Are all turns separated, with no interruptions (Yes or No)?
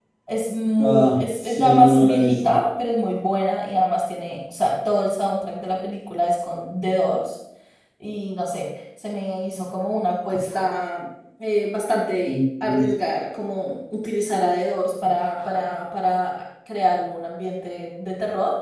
No